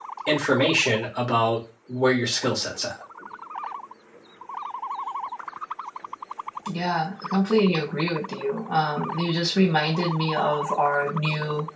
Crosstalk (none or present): none